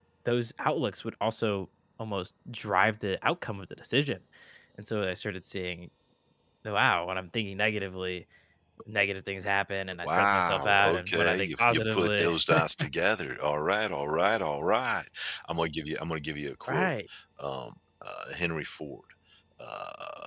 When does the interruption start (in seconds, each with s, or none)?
10.0 s